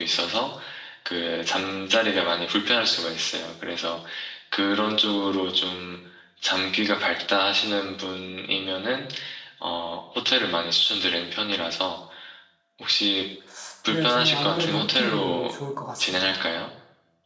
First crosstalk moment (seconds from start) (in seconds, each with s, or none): 13.9 s